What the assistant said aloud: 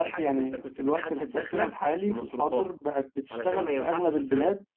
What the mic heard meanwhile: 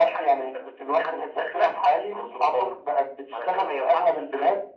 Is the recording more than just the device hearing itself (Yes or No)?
No